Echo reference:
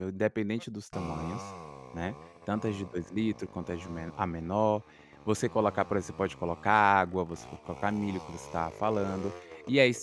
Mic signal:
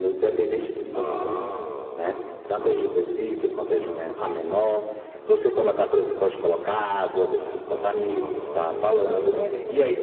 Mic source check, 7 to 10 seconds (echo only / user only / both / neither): both